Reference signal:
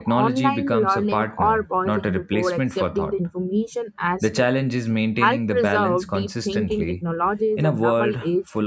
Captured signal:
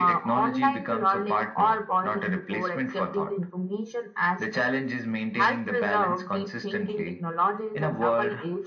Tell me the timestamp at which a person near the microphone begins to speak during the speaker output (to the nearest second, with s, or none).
none